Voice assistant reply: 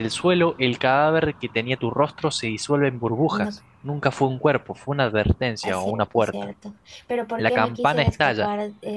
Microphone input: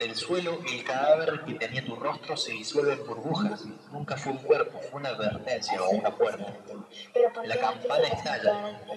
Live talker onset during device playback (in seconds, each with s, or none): none